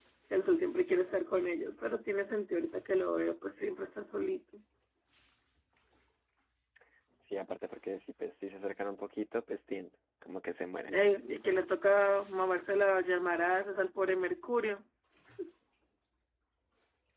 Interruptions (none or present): none